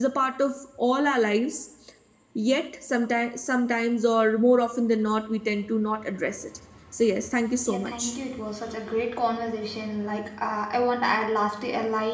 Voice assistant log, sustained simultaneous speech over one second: none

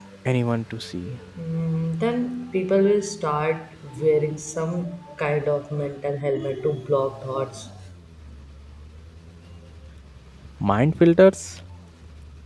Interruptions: none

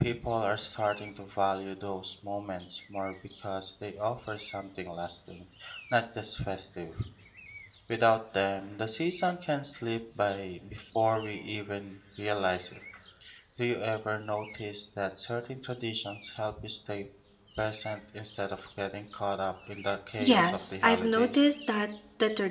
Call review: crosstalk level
present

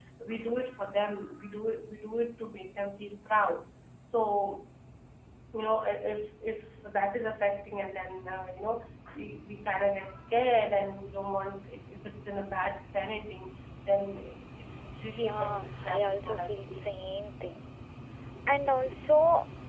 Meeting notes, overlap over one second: present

